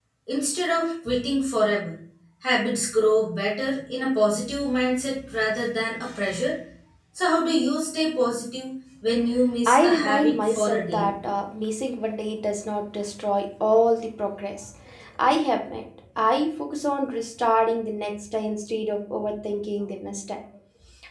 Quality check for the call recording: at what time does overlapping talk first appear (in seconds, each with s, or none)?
9.7 s